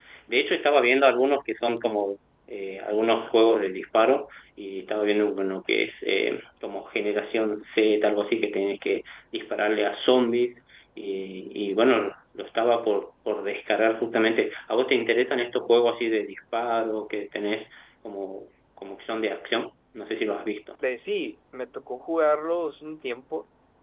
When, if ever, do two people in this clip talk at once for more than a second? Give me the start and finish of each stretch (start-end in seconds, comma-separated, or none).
none